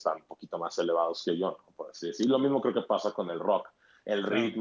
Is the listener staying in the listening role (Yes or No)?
Yes